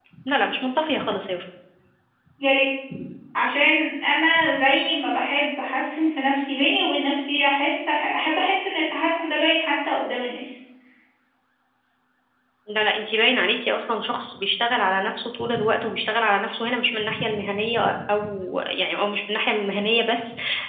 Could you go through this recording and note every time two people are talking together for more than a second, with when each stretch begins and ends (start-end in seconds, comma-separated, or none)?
none